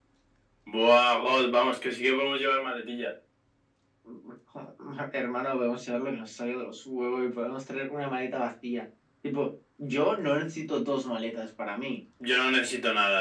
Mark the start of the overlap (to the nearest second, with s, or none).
none